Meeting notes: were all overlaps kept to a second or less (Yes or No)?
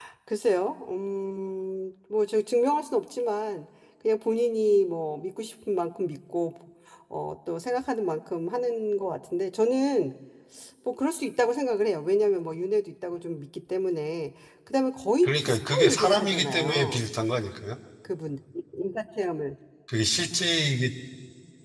No